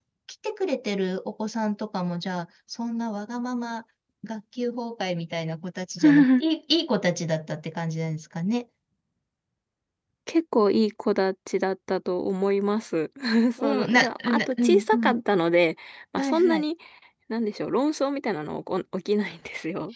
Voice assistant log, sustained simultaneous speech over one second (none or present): present